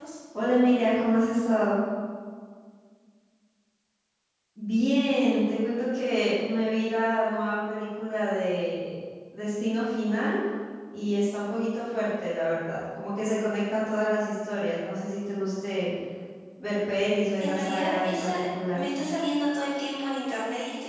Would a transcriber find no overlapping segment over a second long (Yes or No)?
No